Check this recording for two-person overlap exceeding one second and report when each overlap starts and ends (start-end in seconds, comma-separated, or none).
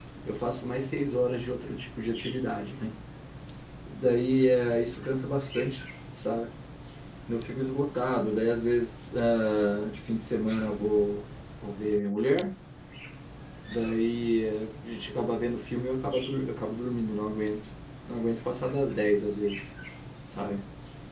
none